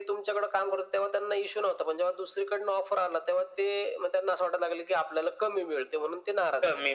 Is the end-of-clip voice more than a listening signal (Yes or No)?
Yes